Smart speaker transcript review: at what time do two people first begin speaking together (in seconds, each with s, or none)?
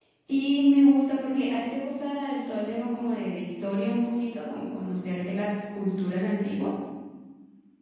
none